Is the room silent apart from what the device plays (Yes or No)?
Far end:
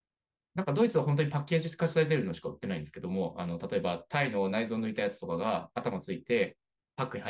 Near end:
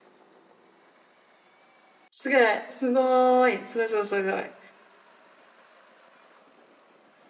No